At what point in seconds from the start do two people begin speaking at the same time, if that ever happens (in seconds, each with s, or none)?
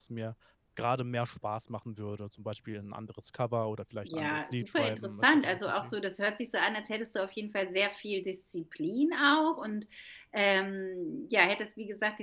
4.0 s